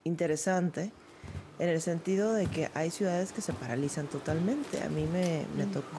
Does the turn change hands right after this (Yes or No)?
No